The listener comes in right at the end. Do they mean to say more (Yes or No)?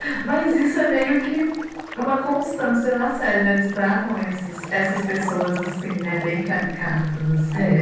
Yes